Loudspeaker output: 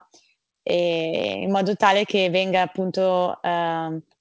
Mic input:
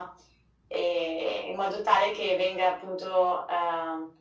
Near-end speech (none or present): none